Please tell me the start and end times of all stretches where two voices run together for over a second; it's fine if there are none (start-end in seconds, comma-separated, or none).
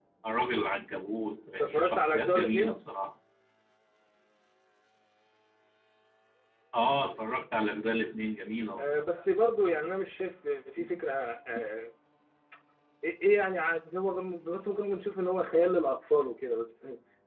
1.6-2.8